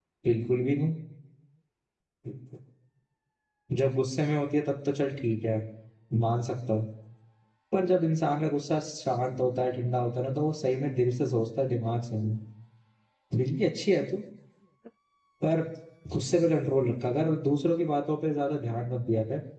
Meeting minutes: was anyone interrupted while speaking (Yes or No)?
No